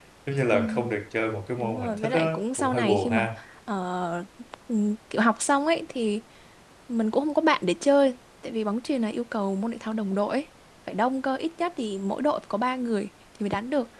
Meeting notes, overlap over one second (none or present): present